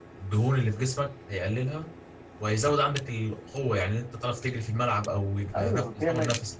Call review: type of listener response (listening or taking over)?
taking over